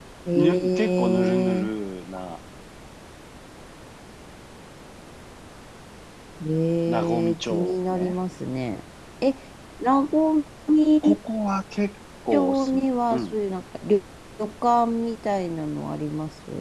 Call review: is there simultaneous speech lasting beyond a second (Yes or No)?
Yes